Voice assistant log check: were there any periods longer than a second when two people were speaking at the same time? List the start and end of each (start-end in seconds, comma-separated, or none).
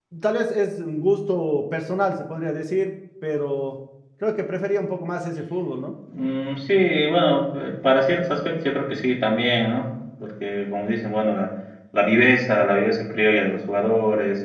none